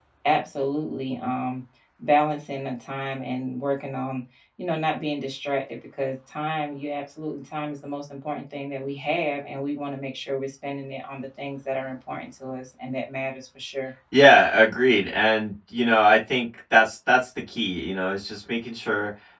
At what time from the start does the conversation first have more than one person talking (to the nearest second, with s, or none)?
none